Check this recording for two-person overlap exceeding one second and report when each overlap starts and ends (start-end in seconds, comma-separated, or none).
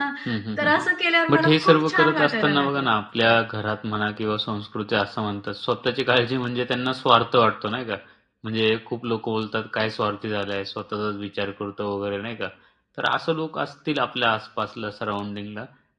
1.3-2.9